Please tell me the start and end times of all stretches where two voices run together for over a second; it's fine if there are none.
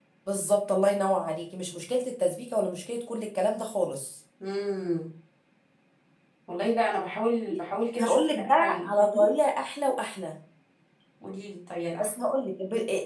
8.0-9.3

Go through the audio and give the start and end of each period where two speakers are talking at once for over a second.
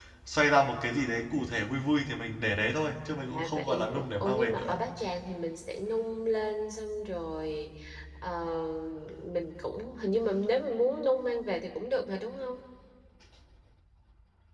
3.3-4.8

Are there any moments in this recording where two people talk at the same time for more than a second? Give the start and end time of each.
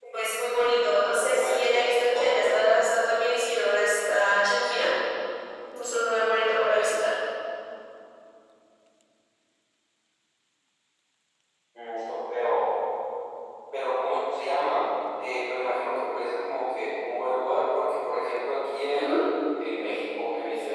1.1-2.5

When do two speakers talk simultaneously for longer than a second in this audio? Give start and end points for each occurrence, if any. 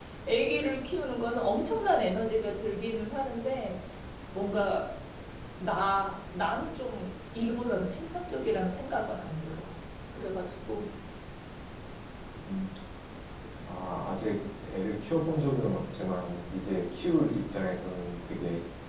none

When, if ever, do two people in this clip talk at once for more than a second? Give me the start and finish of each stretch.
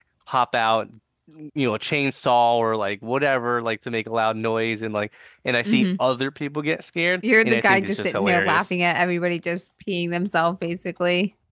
7.4-8.7

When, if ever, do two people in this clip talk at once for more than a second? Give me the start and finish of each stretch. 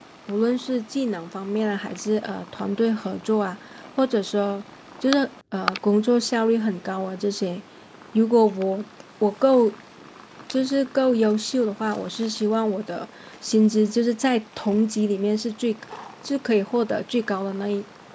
none

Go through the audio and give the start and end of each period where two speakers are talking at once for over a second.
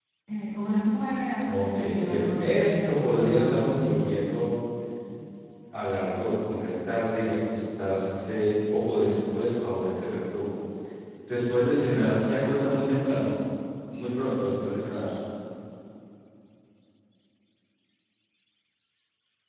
1.5-3.9

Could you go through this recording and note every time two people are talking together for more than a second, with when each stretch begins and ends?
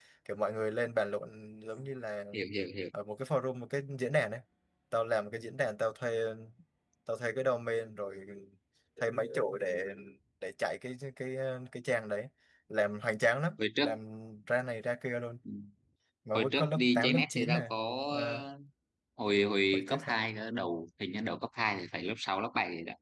16.3-17.7

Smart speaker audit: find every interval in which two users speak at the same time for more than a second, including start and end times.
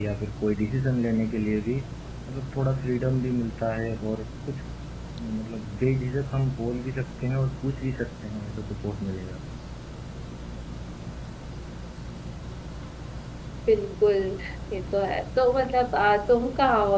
none

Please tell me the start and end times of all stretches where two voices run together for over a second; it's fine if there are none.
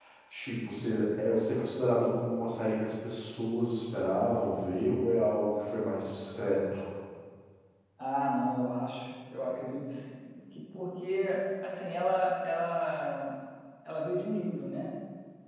none

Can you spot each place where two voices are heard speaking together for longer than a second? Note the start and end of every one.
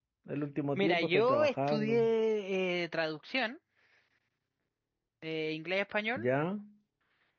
0.8-2.1

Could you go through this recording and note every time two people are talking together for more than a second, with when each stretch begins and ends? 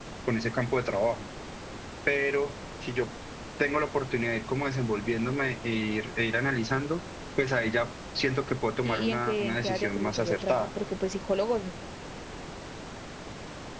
8.8-10.7

